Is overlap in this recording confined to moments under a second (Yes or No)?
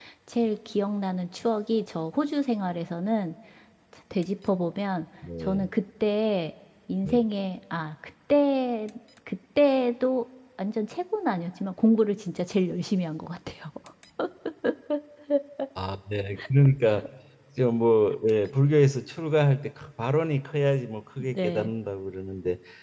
Yes